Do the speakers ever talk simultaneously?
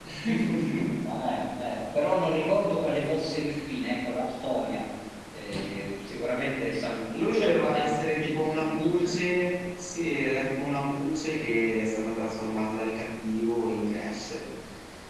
Yes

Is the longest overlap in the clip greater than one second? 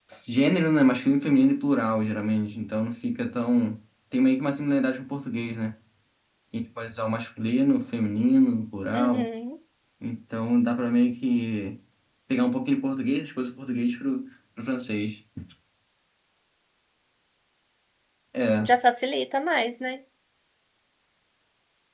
No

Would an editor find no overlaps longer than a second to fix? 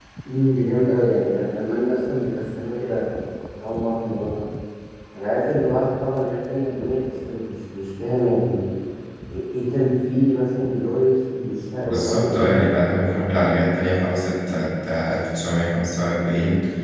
No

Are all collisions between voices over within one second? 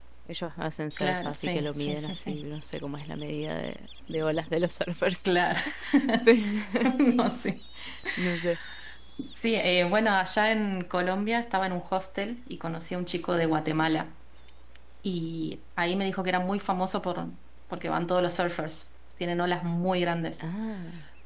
No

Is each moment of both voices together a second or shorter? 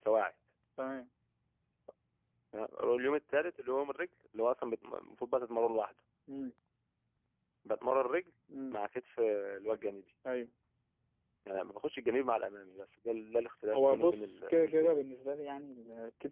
No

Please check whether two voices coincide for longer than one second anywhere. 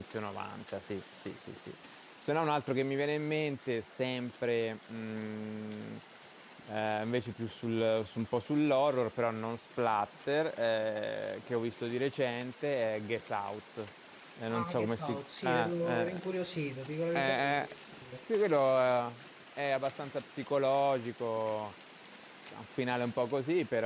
Yes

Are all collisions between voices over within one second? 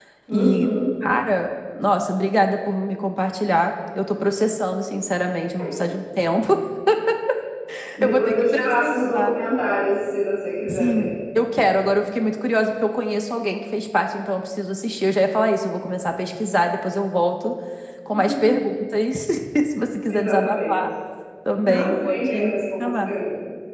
No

